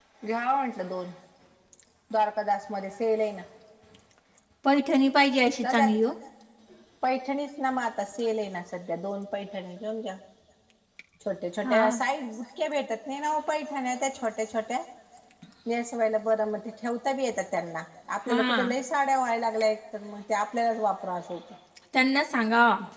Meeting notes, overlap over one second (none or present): none